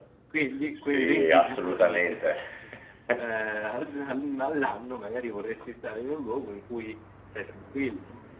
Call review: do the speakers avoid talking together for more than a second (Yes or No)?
No